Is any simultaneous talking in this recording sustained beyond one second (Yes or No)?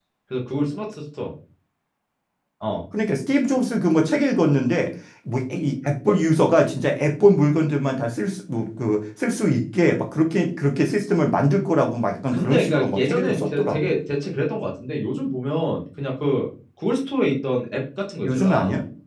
Yes